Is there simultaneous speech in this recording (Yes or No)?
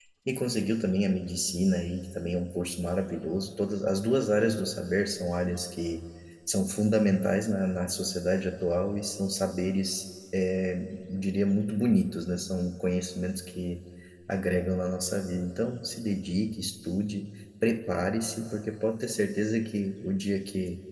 No